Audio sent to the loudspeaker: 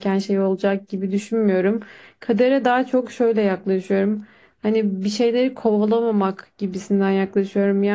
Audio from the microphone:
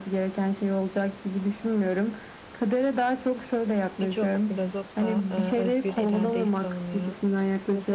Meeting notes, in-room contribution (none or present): present